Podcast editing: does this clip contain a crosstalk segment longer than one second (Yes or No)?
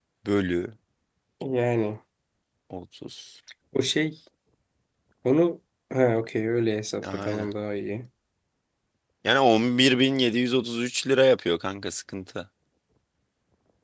No